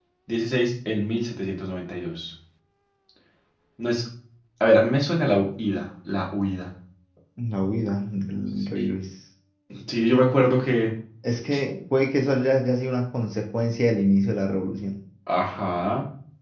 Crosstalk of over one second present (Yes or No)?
No